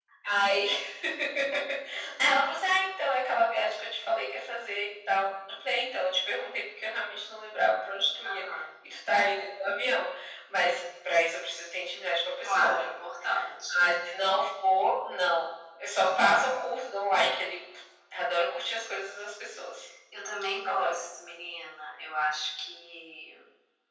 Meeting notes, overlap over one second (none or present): none